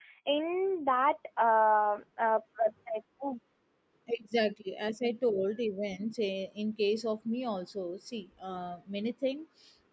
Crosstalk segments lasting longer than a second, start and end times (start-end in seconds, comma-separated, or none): none